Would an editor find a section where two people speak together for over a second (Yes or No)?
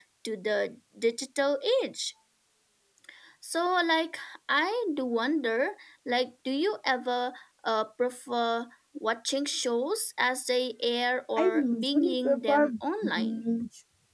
Yes